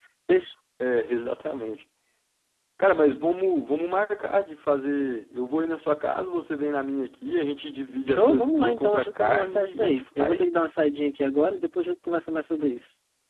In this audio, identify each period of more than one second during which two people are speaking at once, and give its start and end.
8.1-10.4

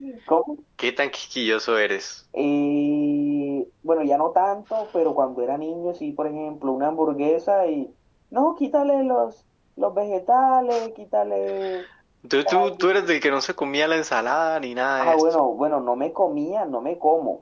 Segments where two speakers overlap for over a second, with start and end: none

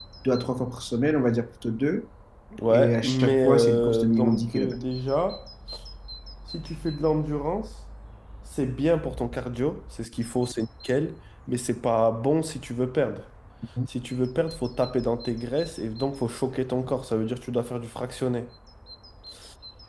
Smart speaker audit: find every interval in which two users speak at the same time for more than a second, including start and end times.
2.7-4.8

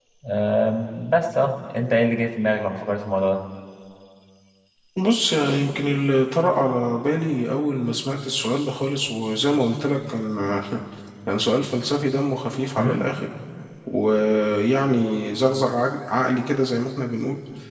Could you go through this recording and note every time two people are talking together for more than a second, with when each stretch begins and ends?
none

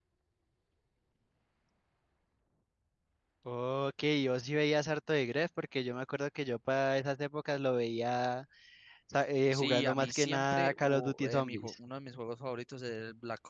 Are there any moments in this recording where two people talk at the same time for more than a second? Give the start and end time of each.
9.5-11.7

